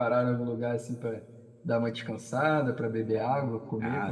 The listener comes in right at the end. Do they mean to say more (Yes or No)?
Yes